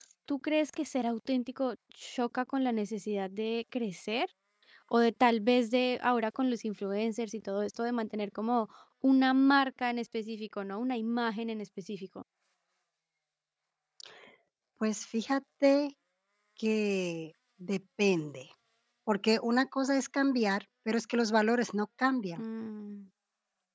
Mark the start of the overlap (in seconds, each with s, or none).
none